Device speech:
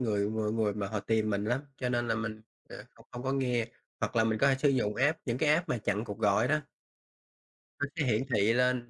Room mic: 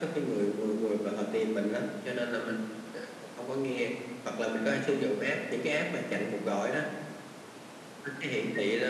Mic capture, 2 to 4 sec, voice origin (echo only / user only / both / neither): echo only